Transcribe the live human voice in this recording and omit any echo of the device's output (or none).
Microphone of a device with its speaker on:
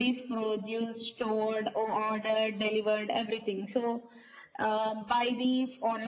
none